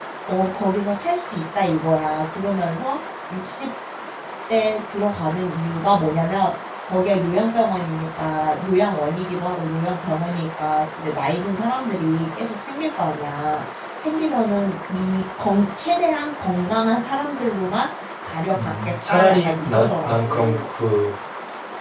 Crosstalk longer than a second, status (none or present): present